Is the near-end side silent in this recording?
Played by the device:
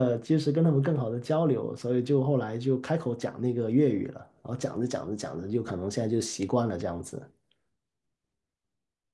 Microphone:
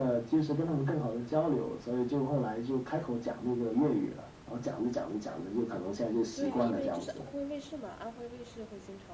No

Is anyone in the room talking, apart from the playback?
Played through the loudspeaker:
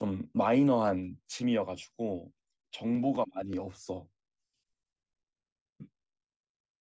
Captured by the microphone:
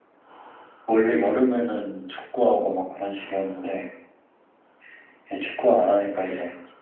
Yes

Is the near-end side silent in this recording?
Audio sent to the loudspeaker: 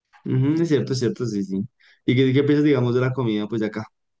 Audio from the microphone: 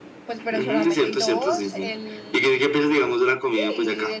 No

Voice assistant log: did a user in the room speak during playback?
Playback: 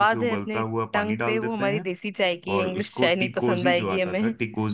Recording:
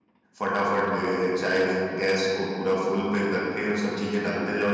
Yes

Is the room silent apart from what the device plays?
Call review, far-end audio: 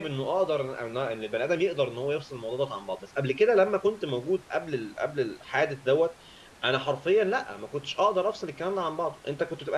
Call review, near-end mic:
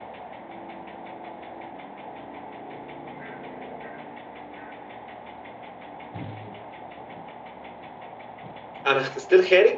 No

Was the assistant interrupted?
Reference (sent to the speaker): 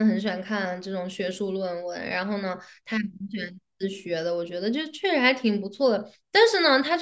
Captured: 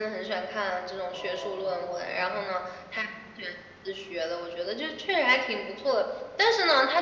Yes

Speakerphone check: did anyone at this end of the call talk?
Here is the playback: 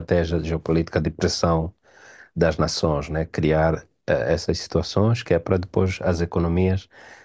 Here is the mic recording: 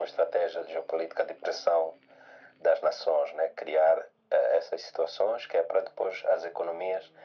No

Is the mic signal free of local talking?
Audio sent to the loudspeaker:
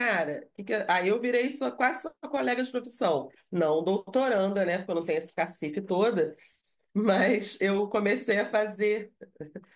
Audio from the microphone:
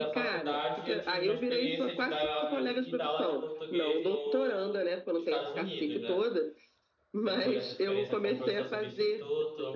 No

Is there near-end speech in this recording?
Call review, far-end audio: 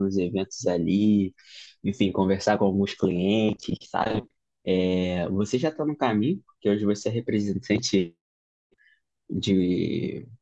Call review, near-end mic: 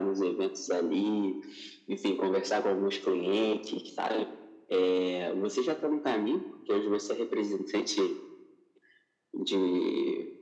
No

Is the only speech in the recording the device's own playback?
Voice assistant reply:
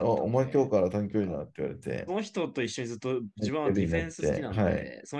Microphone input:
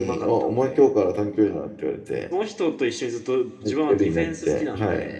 Yes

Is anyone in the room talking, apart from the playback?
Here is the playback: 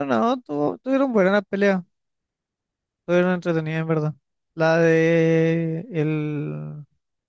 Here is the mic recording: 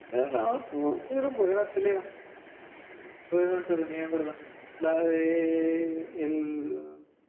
No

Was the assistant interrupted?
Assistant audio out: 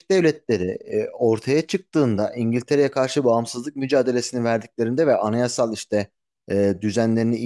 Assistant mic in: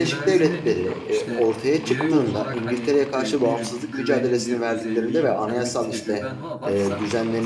Yes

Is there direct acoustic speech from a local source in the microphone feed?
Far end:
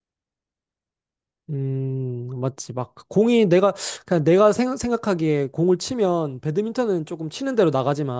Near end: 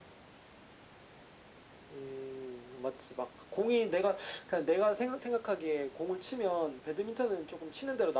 No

